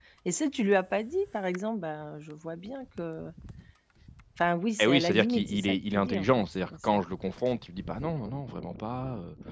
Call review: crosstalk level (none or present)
present